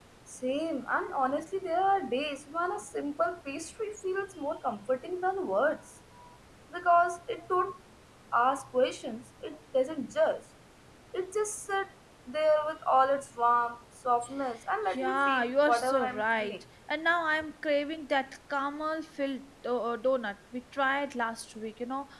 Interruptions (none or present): present